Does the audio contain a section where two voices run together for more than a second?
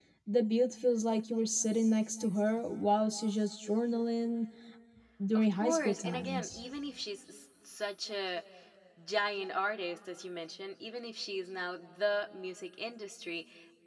Yes, from 5.4 s

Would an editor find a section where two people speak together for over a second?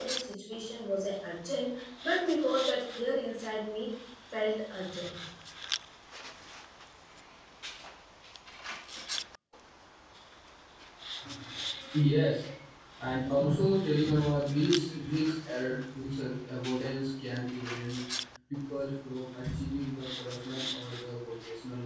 No

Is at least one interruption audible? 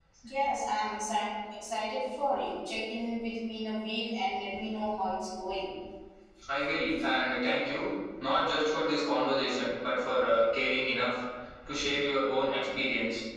No

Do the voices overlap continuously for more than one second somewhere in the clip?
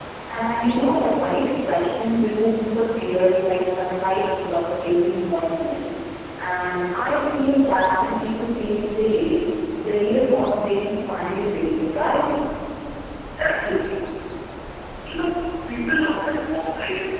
No

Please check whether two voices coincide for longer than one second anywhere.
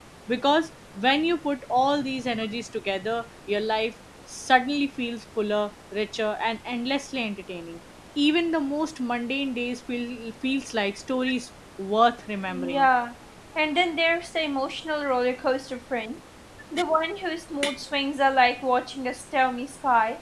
No

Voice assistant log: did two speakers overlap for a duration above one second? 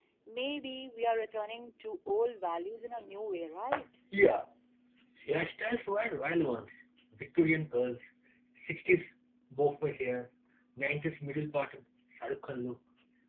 No

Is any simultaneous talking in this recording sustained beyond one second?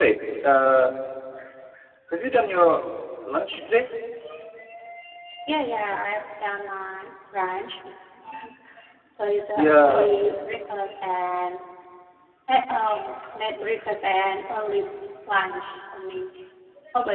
No

